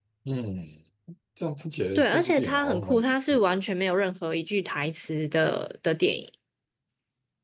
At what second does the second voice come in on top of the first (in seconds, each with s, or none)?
2.0 s